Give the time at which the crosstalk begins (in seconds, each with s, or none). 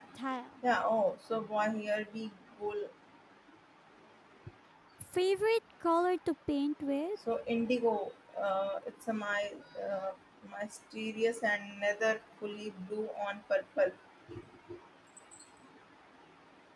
none